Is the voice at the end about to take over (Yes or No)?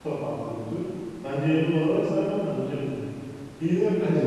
Yes